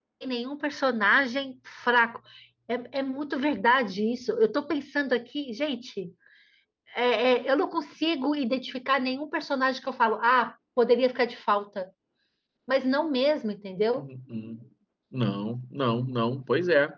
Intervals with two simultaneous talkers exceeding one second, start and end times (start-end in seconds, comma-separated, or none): none